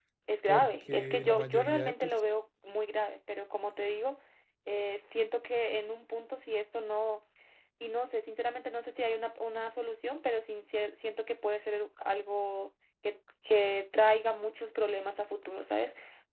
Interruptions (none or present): present